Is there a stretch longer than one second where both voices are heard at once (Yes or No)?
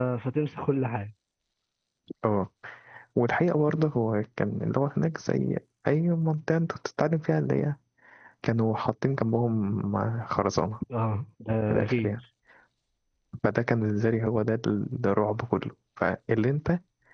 No